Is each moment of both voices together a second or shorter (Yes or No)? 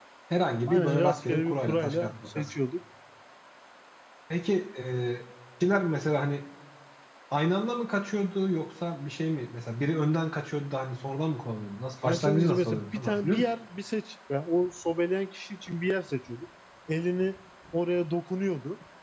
No